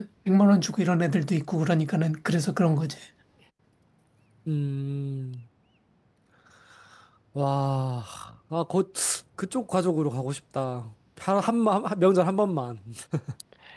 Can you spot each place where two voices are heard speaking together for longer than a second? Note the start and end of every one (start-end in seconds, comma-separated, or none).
none